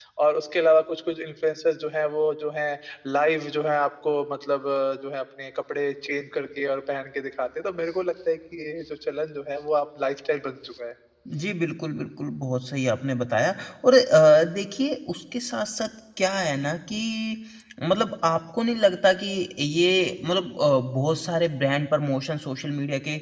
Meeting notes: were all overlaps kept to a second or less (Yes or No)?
Yes